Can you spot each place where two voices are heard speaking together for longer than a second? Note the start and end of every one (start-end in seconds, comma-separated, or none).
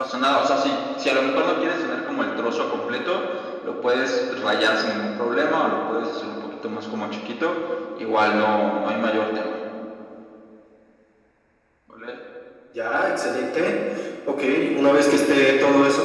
none